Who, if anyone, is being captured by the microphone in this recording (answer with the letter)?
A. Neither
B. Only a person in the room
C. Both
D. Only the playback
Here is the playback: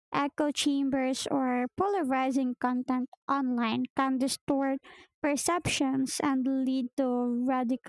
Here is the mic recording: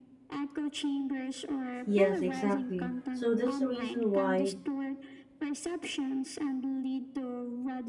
C